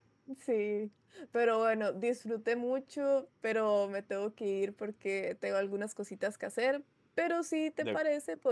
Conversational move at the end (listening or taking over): listening